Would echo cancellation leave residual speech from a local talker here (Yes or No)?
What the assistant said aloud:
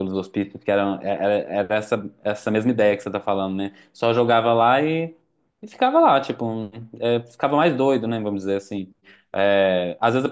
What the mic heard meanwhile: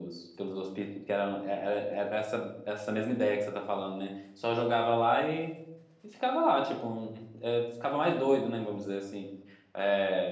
No